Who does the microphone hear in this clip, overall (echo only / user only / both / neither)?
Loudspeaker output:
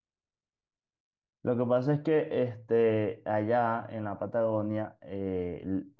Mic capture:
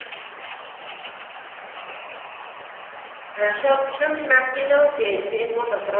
user only